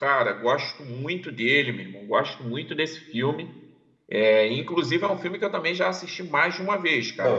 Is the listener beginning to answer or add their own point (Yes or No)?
Yes